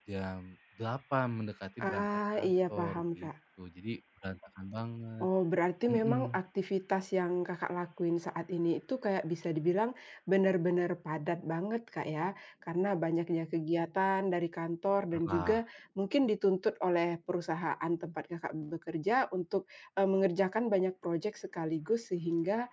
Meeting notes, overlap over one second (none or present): present